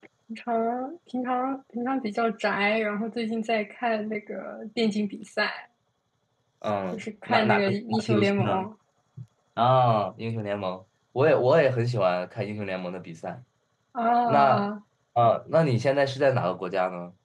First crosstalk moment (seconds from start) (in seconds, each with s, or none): 6.9 s